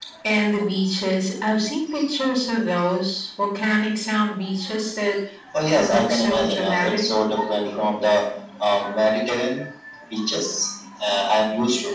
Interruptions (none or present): present